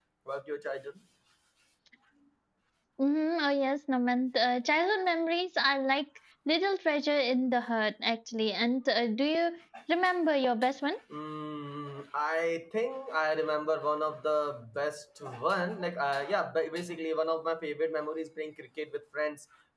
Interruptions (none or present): none